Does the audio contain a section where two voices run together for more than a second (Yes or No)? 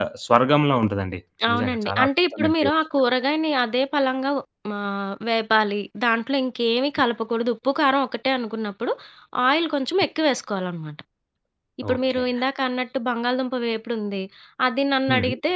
Yes